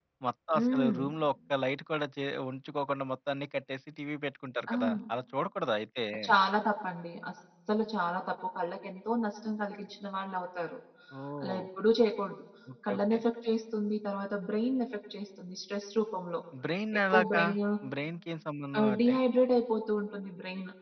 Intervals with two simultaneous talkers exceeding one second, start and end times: none

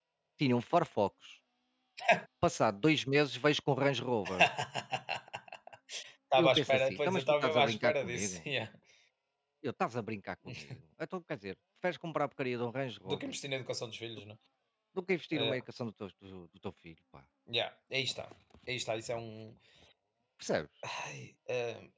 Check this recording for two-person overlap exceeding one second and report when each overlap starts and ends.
6.4-8.4

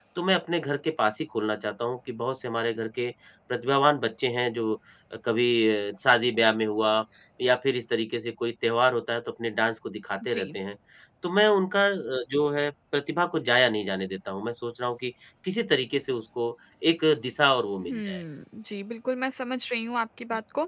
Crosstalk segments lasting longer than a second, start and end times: none

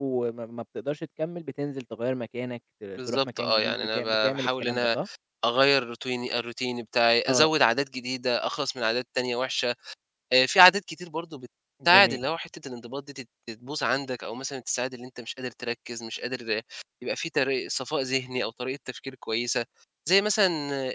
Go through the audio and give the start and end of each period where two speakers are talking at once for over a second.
3.0-5.0

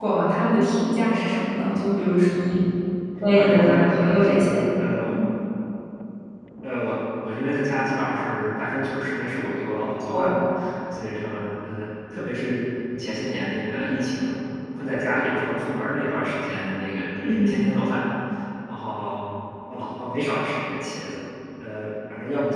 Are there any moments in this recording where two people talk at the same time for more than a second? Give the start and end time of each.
3.3-4.6

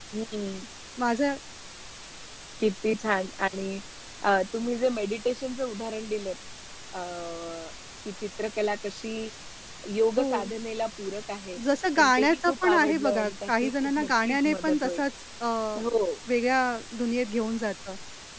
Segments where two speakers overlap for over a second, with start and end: 12.0-15.0

